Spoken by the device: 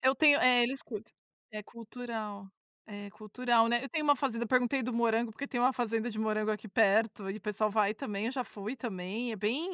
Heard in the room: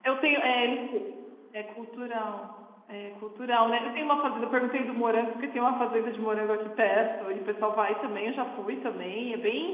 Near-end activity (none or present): none